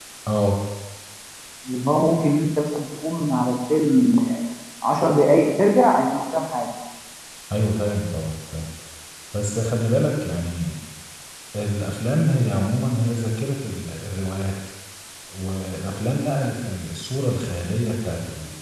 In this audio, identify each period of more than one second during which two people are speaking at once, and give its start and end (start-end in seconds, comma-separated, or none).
none